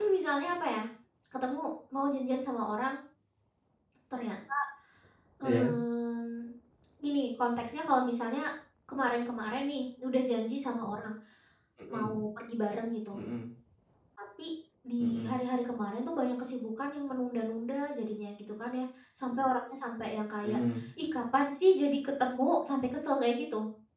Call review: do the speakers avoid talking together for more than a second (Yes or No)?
Yes